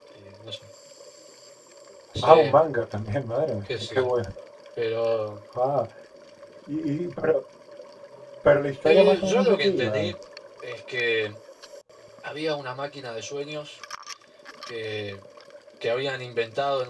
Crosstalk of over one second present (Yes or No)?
Yes